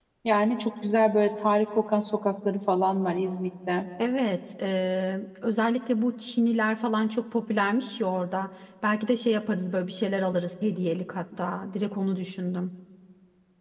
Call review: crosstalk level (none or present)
none